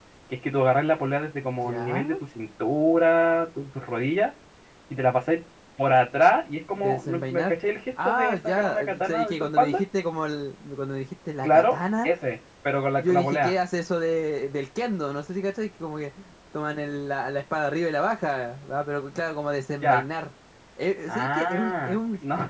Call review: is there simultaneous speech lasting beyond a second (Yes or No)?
Yes